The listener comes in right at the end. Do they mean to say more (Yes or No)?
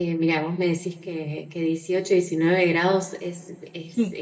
No